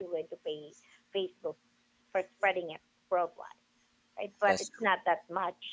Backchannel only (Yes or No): Yes